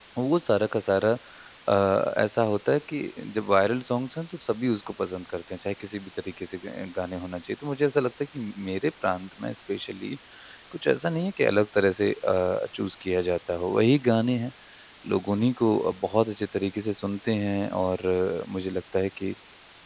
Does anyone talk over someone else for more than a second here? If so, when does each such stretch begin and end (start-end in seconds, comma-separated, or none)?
none